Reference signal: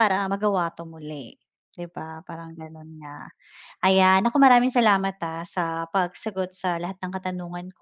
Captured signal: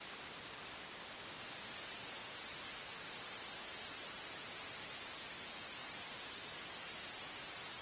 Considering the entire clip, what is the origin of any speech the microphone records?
neither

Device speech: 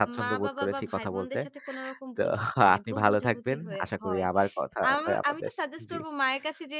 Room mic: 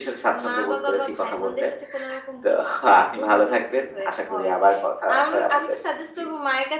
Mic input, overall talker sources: echo only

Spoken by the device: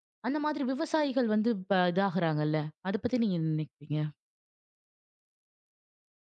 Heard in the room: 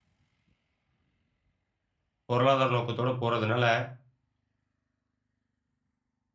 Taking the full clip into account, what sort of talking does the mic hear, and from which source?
user only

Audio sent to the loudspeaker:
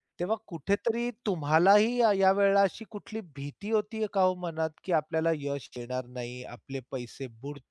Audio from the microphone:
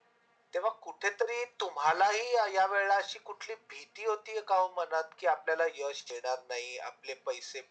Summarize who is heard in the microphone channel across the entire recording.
echo only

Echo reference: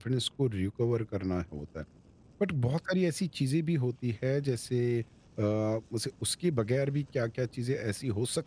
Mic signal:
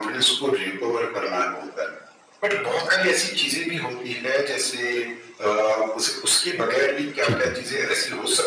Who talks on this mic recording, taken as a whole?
both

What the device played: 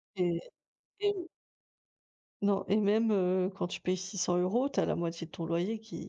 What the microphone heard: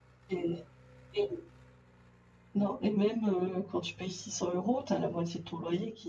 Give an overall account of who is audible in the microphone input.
echo only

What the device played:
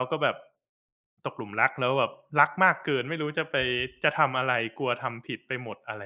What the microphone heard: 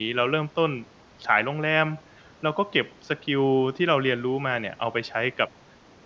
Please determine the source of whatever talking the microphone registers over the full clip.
user only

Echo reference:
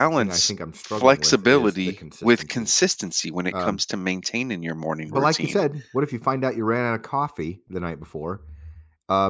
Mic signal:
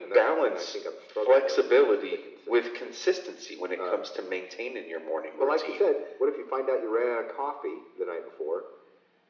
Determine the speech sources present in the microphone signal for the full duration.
echo only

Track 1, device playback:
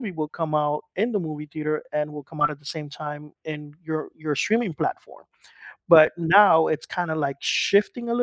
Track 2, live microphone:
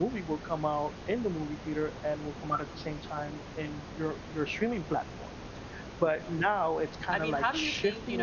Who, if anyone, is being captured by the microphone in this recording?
both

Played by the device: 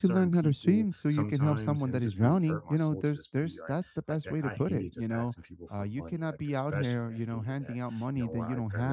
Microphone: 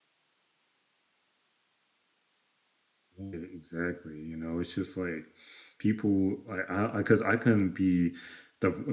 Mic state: user only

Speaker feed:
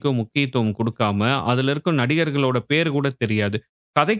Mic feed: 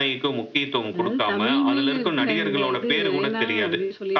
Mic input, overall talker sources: both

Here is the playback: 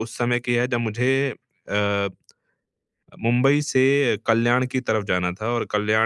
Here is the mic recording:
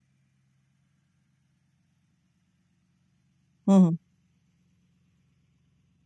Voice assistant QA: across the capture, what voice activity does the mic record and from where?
user only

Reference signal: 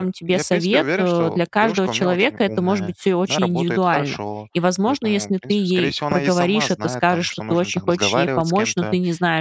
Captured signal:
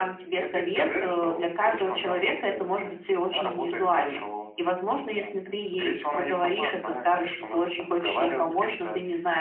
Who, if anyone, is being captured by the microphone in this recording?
echo only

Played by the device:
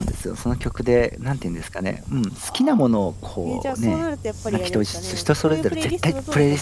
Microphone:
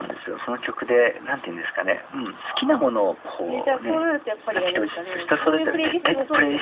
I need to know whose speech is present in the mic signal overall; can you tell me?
both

